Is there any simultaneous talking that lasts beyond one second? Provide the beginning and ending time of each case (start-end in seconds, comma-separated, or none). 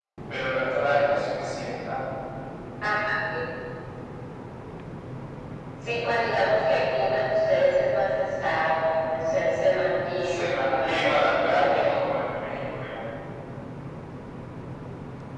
10.2-12.0